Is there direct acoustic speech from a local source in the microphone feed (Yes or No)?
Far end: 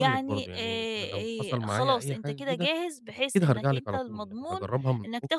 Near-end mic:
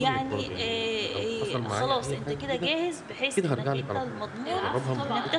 Yes